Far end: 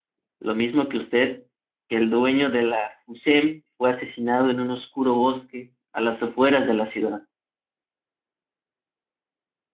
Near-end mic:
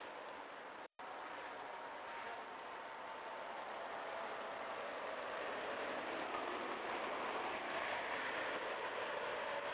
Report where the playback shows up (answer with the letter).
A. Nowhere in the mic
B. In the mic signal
A